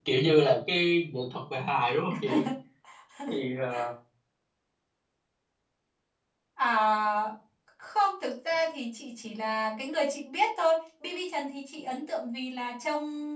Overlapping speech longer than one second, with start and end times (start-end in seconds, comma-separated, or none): none